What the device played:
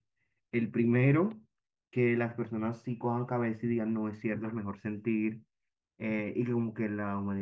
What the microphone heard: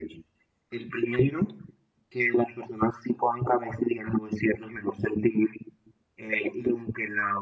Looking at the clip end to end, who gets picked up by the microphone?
echo only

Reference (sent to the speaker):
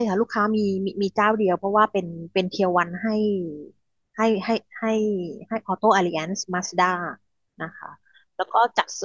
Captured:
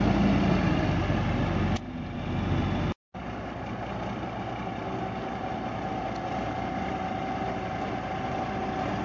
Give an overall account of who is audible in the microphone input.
neither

